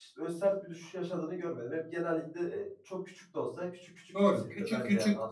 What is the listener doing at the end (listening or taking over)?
taking over